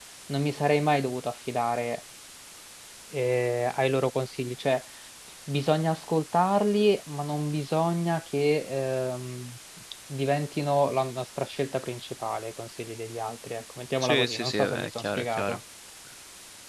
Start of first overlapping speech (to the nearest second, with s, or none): 14 s